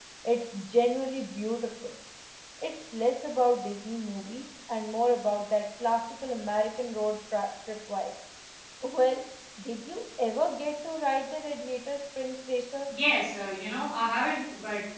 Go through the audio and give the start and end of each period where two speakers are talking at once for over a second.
none

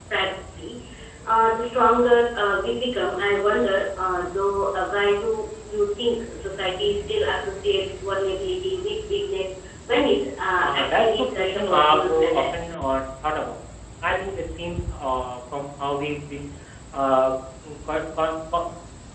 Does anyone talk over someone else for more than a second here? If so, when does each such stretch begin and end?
10.6-12.4

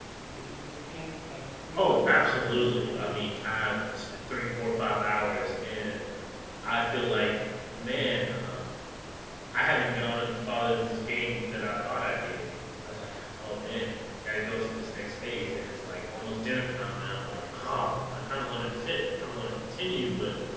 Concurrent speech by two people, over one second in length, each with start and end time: 1.8-3.2

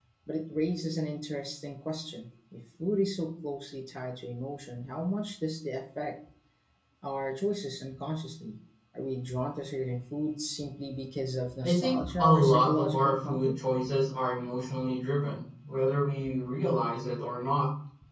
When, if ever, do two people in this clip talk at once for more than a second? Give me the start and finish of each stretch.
11.6-13.5

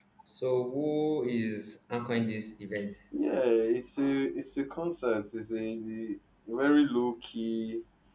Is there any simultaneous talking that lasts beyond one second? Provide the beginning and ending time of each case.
none

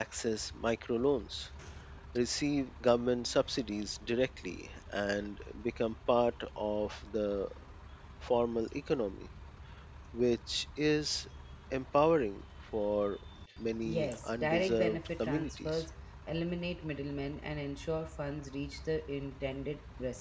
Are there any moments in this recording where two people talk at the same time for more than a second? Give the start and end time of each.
13.8-15.8

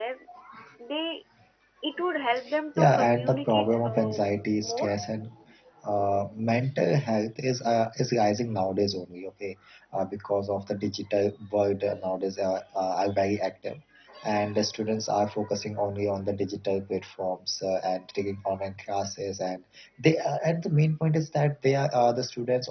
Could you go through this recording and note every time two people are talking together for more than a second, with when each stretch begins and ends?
2.8-4.2

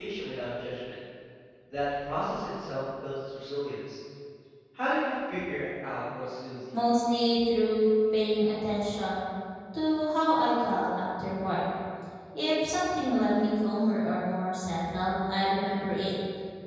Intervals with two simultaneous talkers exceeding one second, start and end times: none

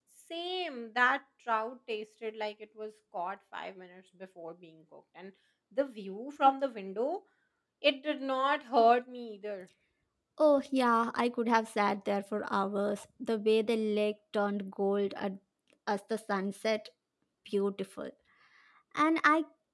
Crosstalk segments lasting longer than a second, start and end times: none

